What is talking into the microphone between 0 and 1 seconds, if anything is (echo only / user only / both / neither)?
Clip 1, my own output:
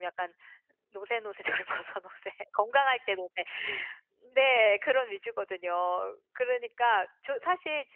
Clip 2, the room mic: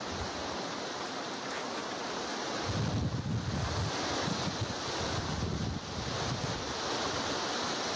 neither